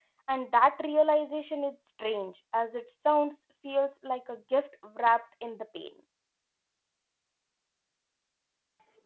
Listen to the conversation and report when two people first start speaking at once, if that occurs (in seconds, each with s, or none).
none